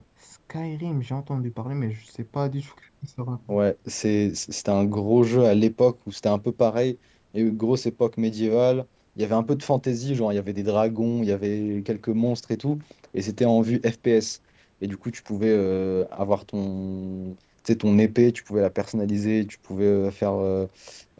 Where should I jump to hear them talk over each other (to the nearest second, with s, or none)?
none